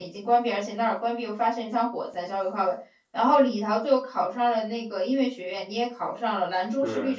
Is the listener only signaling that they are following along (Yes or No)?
Yes